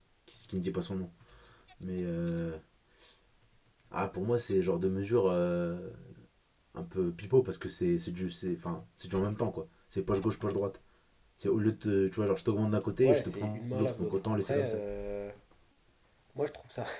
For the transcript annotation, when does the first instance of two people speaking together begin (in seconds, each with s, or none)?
13.0 s